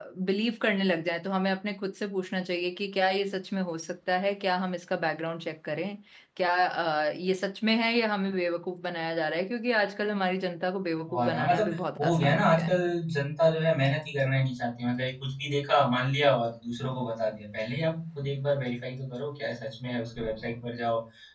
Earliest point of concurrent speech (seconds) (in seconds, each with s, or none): 11.1 s